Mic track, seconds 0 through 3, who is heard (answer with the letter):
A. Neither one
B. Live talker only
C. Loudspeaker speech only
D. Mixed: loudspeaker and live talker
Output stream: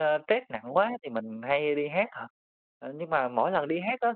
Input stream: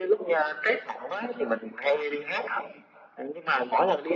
C